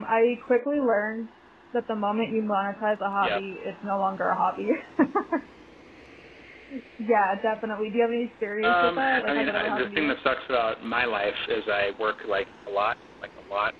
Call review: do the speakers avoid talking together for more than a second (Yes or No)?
No